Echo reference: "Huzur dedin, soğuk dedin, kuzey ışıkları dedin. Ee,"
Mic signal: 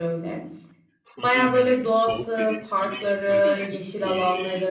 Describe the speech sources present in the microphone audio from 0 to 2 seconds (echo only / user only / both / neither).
both